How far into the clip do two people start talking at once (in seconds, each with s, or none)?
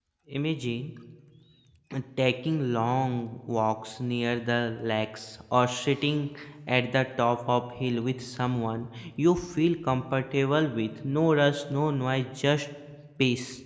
none